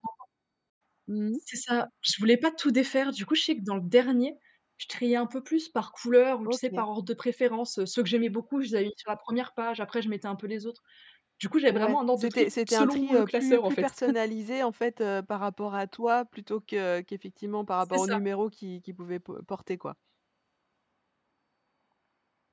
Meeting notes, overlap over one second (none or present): present